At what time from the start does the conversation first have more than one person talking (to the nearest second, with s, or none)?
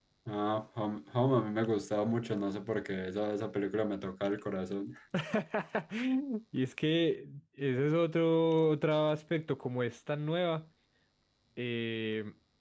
none